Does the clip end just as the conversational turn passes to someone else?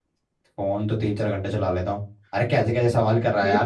No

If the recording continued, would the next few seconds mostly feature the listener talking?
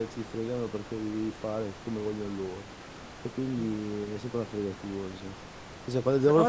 No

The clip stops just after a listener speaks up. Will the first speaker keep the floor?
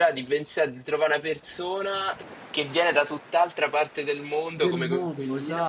No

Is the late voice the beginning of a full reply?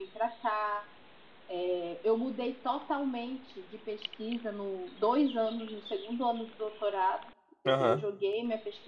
No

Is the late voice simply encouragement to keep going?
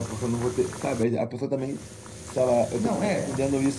Yes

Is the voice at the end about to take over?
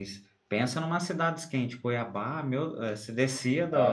Yes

